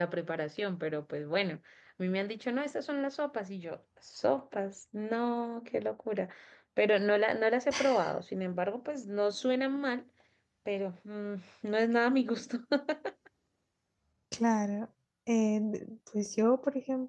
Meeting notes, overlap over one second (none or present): none